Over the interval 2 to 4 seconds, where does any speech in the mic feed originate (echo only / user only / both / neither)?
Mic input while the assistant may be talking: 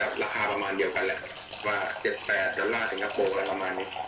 echo only